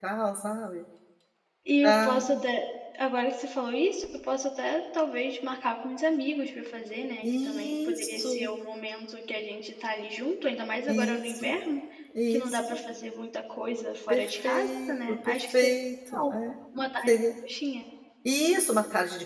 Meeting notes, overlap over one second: present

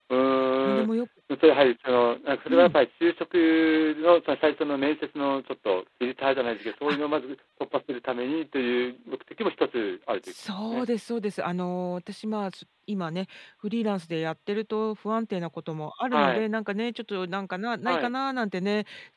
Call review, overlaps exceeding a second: none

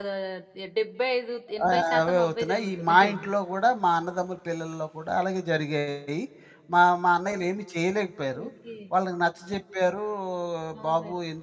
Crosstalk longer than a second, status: present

